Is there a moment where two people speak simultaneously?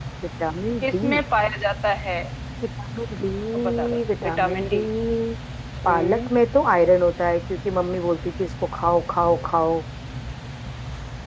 Yes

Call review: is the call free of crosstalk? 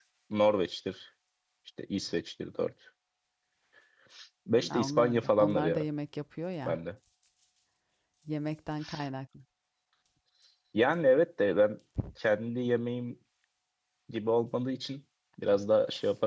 No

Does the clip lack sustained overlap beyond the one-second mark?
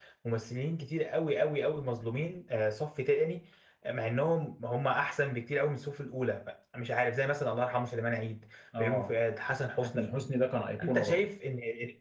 Yes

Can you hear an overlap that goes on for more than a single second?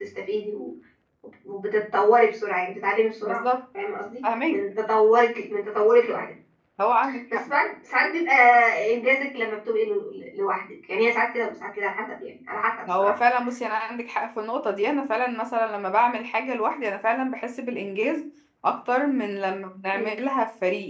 No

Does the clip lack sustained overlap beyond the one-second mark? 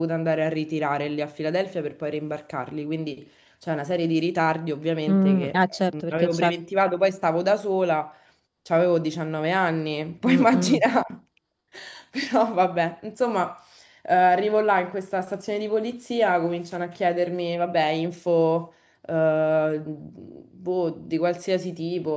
No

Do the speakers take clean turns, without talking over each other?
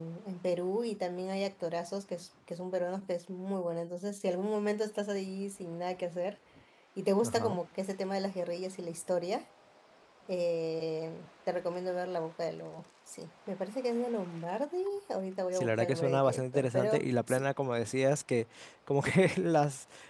No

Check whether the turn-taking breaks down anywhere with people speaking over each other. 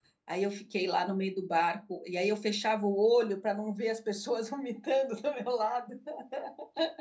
No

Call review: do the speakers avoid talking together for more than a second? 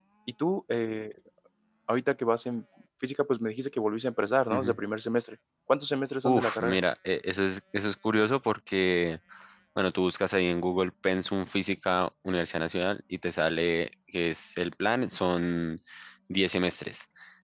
Yes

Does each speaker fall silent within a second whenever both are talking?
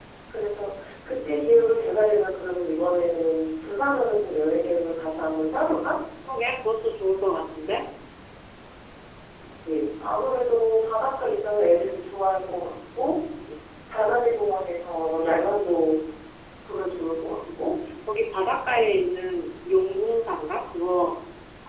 Yes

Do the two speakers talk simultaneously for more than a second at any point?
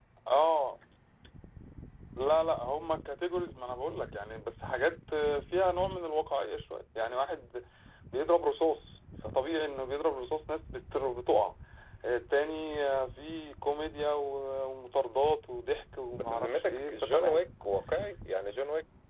Yes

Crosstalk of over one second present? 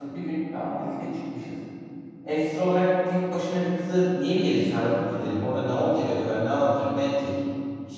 No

